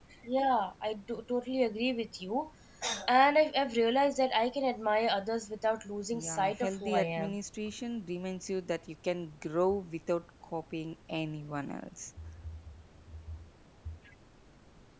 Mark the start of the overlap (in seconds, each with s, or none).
6.1 s